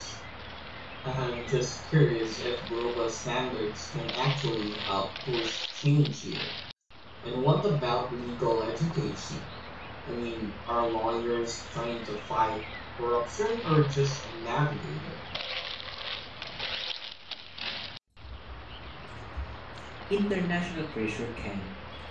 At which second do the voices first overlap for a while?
none

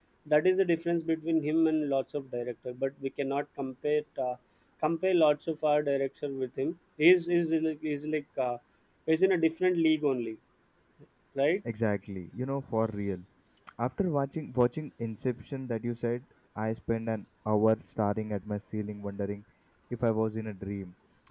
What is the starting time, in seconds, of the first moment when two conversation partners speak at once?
none

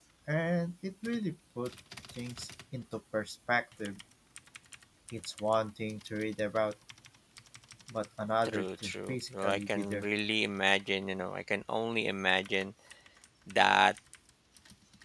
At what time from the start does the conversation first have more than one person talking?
8.4 s

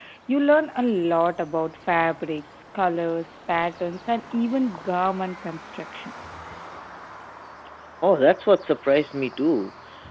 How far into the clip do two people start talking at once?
none

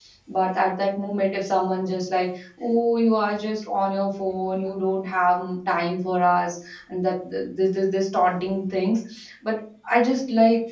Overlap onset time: none

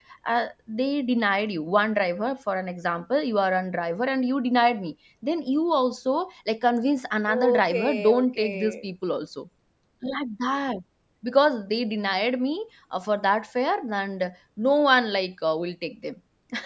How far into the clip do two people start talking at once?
7.3 s

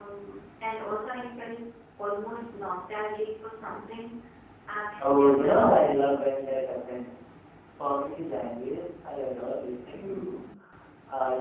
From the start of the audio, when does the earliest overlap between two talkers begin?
5.0 s

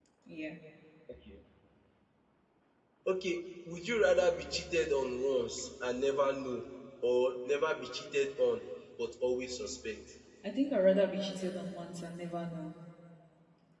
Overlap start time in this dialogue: none

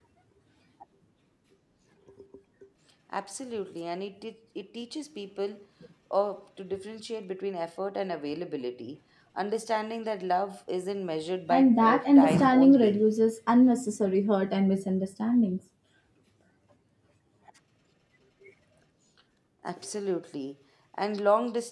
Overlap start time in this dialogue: 11.5 s

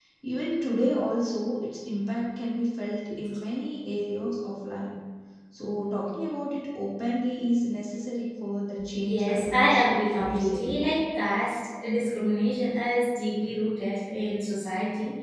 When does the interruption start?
9.0 s

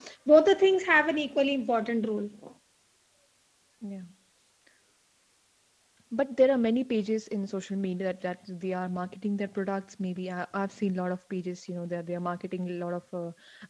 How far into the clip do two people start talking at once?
none

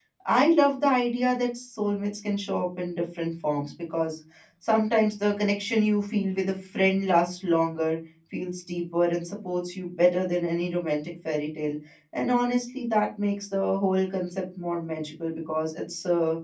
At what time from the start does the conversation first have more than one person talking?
none

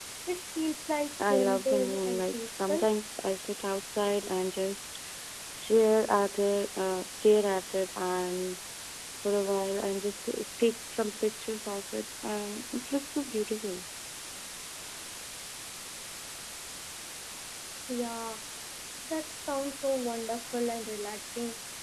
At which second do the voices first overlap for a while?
1.3 s

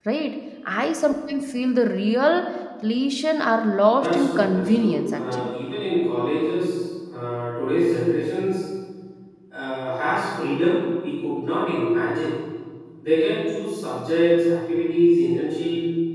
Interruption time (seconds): 4.0 s

